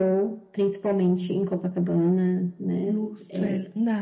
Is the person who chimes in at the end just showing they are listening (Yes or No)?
No